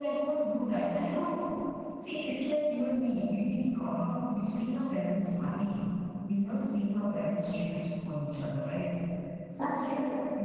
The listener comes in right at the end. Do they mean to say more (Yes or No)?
No